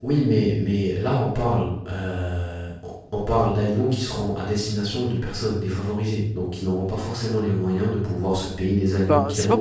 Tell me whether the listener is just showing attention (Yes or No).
No